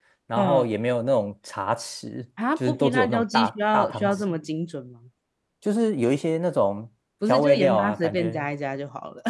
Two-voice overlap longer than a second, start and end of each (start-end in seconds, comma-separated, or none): 2.6-4.3, 7.3-8.5